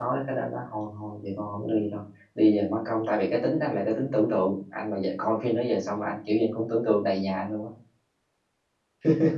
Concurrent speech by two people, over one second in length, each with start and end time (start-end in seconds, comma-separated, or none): none